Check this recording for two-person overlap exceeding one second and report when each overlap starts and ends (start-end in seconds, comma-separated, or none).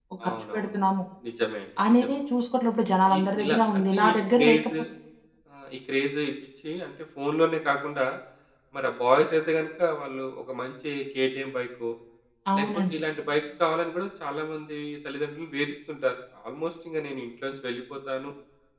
3.2-4.6